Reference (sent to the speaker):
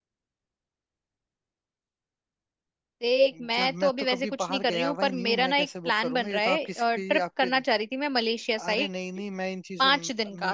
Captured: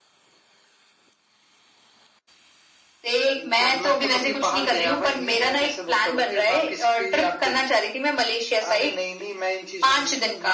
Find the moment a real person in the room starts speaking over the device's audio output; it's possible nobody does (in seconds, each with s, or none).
none